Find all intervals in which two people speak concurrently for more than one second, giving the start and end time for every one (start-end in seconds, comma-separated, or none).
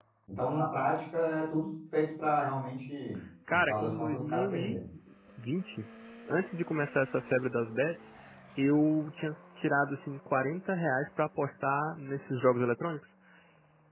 3.5-4.8